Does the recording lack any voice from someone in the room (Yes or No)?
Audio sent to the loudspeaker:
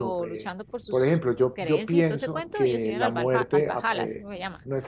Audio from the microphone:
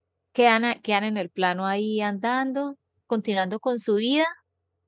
No